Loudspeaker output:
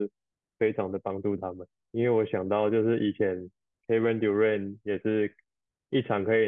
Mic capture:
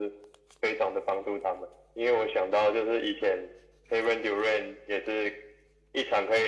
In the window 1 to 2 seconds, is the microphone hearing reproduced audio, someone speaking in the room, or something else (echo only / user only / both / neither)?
echo only